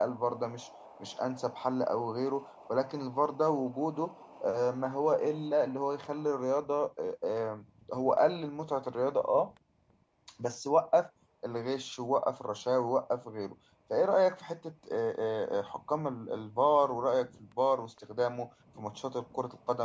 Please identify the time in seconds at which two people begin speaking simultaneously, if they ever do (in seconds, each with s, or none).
none